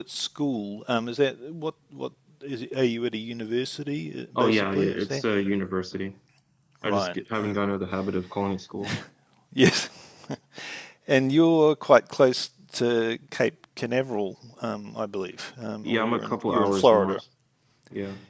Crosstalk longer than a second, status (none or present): present